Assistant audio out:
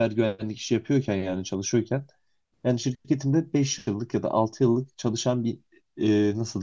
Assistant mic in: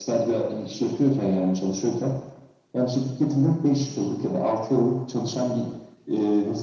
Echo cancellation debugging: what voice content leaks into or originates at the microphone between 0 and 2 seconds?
echo only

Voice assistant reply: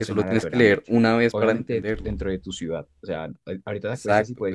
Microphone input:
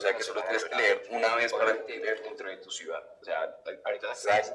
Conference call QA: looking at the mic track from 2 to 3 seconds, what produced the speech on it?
echo only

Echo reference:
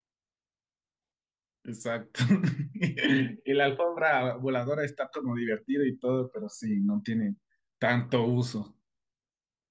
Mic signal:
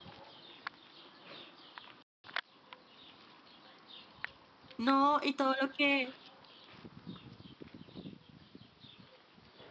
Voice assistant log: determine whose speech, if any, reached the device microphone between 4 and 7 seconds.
user only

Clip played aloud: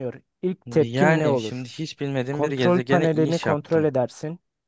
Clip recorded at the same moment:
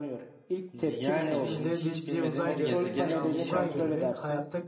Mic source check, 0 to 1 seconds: echo only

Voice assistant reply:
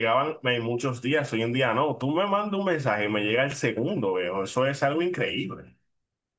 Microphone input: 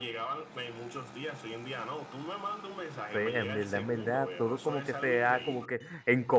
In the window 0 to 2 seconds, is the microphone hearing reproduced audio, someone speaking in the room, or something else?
echo only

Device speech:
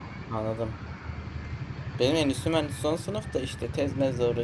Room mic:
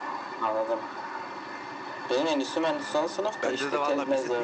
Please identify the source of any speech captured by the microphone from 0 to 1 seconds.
echo only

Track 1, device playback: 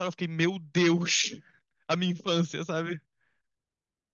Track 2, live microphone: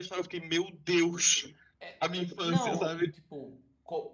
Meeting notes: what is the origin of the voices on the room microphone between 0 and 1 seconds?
echo only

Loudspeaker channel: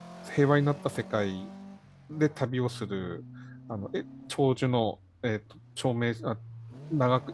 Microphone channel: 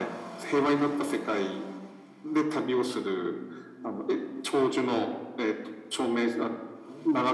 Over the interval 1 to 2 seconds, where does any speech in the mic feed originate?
echo only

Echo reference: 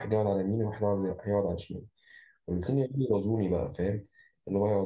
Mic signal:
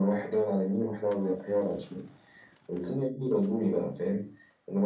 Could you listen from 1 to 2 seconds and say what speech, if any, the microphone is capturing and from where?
echo only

